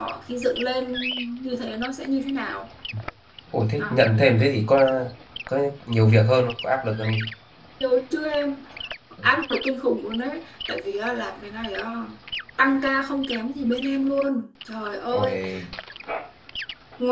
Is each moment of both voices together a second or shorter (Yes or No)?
Yes